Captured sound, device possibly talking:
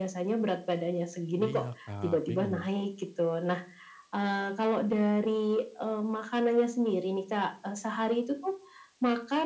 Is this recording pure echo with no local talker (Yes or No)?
No